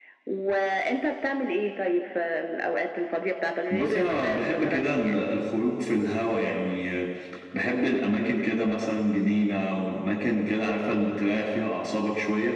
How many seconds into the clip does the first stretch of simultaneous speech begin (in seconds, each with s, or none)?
3.7 s